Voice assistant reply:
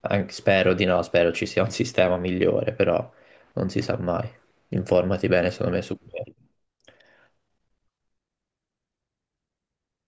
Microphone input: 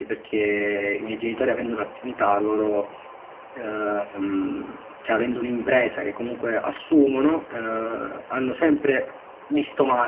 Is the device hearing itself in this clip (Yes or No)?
No